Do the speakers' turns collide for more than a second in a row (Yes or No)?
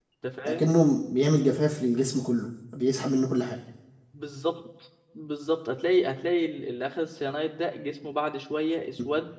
No